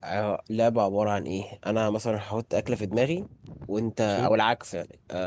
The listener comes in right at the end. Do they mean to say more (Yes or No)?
No